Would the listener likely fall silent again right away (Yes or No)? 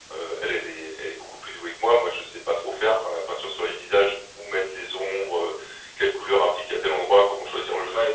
No